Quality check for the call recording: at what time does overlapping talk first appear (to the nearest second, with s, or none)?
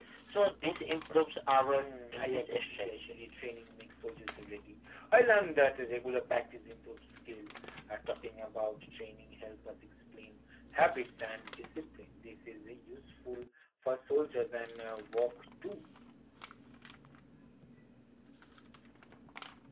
2 s